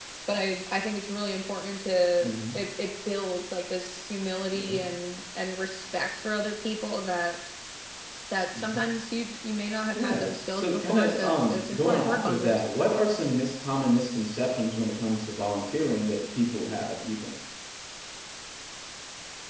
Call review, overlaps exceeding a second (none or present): present